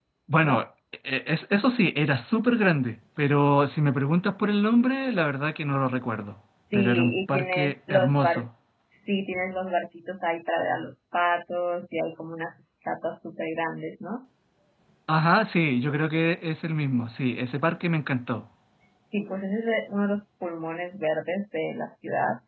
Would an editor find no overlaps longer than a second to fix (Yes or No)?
No